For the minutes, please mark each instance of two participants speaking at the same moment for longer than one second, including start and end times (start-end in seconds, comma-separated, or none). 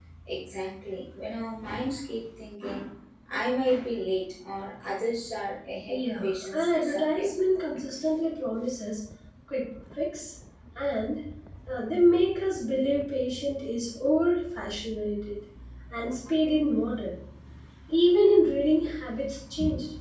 5.9-7.3